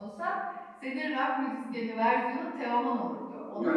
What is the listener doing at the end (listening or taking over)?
taking over